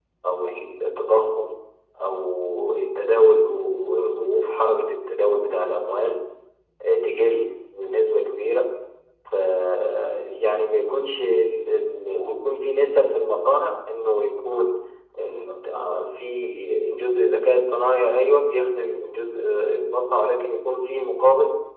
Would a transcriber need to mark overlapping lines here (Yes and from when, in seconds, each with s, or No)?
No